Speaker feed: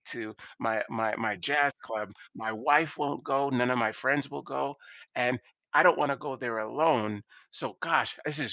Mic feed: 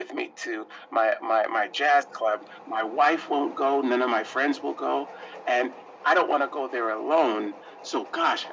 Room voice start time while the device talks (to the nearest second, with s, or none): none